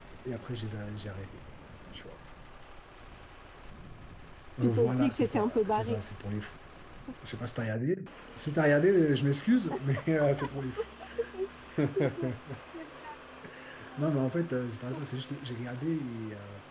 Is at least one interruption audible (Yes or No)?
Yes